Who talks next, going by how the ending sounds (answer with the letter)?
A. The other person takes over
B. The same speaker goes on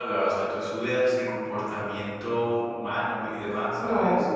A